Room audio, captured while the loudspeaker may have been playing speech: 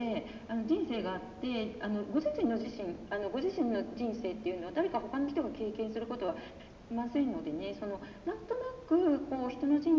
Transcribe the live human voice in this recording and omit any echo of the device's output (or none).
none